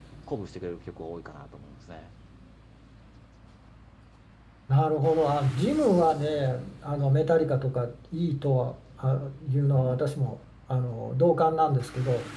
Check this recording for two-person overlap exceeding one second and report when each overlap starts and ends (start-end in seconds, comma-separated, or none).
none